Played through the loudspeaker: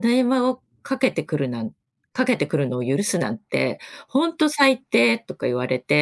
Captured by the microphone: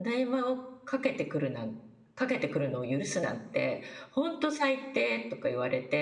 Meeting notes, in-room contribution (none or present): none